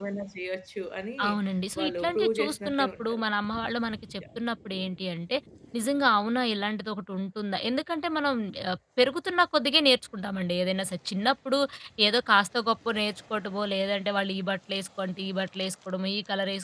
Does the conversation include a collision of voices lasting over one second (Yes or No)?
Yes